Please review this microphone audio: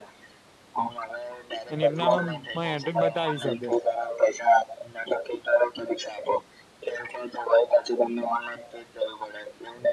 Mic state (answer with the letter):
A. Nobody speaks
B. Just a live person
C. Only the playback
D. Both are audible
D